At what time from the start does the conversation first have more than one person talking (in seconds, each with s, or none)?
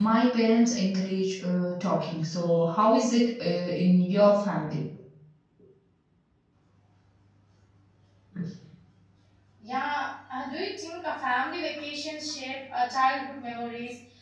none